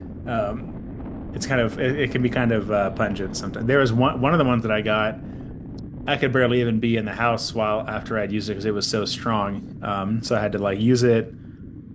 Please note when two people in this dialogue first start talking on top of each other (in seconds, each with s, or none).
none